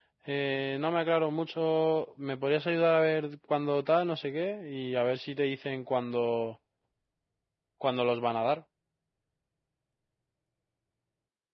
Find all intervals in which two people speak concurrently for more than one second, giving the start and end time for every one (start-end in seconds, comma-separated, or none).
none